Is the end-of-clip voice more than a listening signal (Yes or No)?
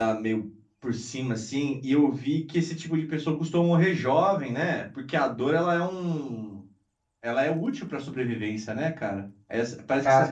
No